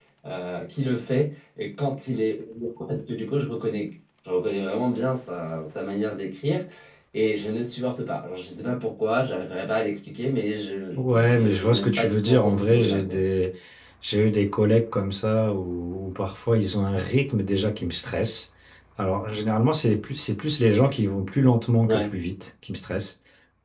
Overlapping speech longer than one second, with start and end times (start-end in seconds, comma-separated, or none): 10.9-13.2